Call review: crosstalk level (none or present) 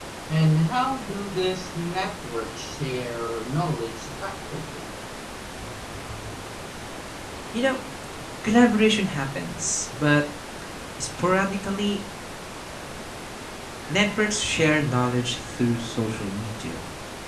none